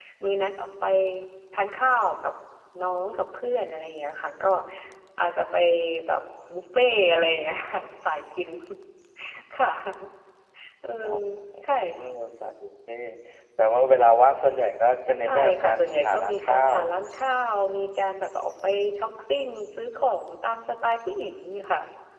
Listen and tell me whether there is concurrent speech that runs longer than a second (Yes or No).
Yes